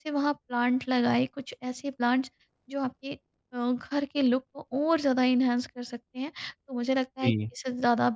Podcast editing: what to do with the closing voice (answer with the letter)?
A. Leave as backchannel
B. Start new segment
A